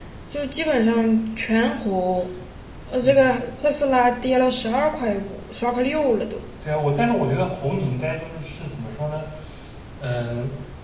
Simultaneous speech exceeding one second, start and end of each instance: none

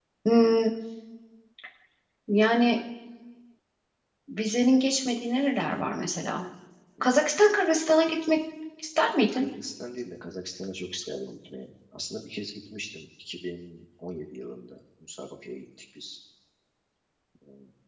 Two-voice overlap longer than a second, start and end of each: none

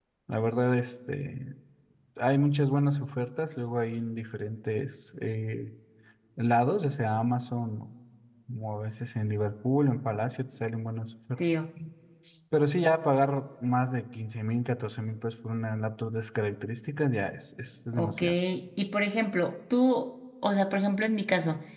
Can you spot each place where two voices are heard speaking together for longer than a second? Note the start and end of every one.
none

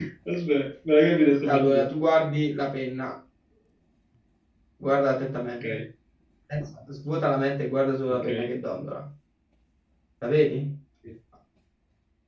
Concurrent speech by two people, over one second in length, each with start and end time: none

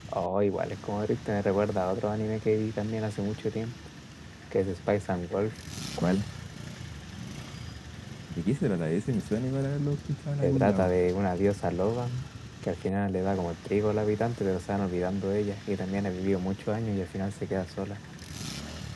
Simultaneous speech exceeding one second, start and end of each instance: none

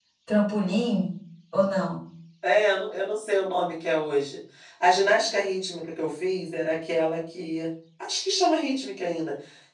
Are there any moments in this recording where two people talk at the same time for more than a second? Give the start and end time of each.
none

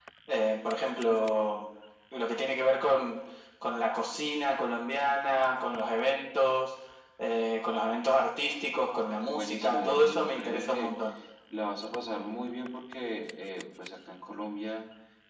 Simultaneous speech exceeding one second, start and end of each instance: 9.3-10.9

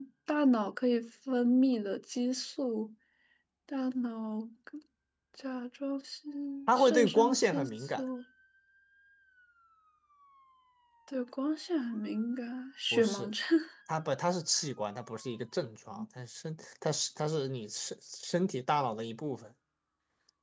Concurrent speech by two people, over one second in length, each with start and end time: 6.8-8.0

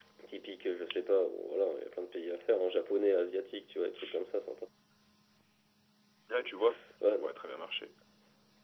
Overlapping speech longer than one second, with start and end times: none

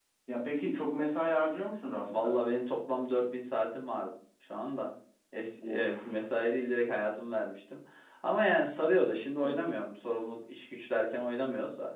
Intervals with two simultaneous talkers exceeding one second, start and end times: none

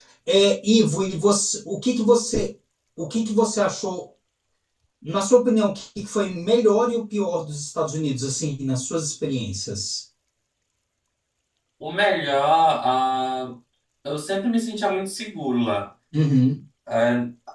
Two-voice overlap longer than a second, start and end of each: none

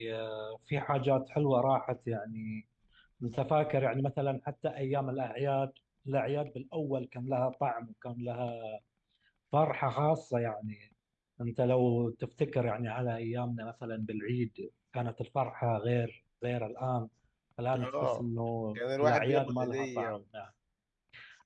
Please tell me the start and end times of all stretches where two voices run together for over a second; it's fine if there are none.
18.8-20.2

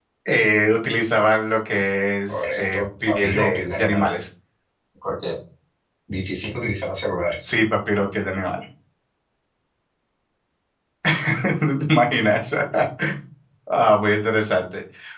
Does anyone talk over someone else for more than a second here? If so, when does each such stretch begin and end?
2.3-4.1

